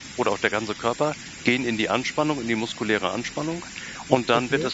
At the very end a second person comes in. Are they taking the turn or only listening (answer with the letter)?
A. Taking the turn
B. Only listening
B